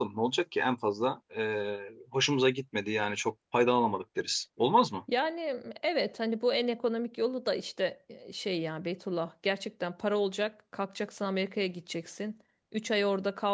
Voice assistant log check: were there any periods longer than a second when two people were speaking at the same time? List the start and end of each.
none

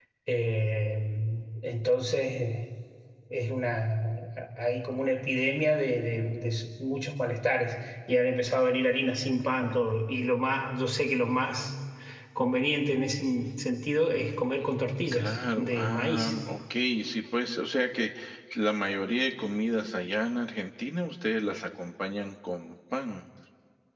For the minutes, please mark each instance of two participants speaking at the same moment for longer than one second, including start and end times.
15.1-16.3

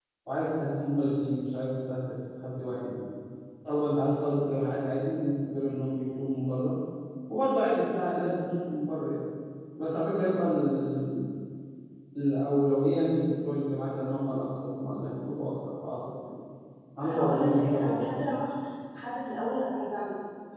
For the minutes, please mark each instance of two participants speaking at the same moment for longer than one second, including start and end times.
17.0-18.4

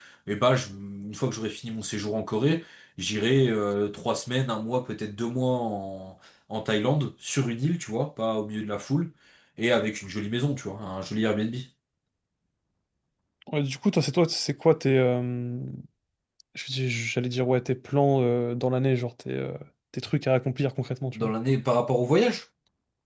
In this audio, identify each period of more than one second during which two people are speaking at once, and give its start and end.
none

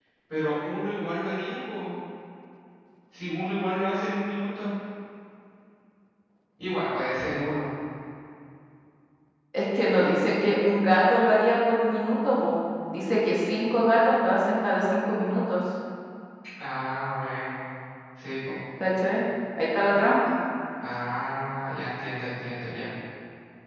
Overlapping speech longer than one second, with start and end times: none

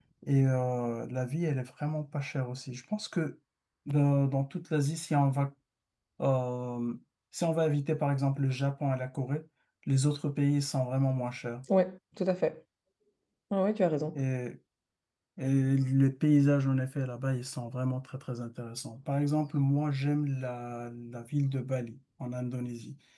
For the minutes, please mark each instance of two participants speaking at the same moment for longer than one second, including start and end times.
none

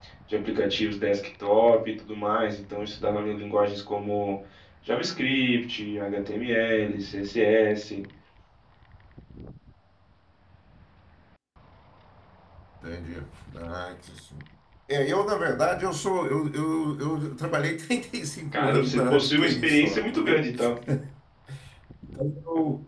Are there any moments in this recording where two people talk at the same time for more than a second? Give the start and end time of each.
18.5-20.4

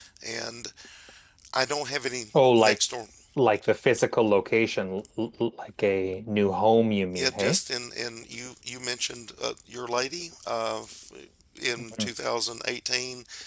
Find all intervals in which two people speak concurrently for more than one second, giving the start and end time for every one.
none

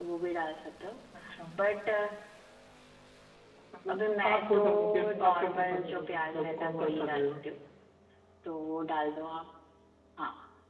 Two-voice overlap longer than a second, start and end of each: 3.9-7.3

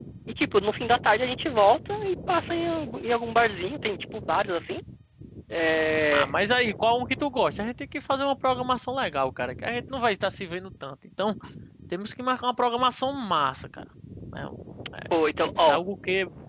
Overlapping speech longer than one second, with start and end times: none

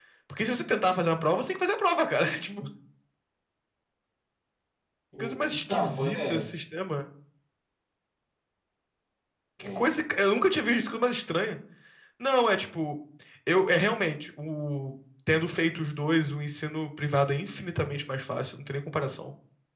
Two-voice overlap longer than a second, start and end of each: 5.2-6.5

